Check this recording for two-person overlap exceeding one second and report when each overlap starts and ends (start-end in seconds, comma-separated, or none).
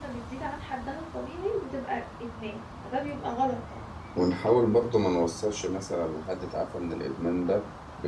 none